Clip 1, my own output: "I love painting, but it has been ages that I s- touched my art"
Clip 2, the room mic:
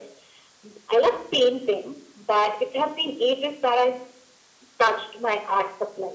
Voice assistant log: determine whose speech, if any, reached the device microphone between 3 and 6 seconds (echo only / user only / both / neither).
echo only